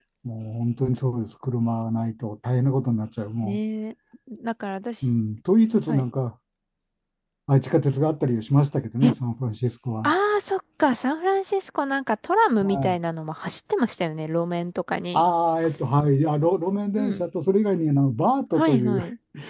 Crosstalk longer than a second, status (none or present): none